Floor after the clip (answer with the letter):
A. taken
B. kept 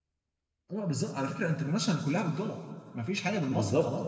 A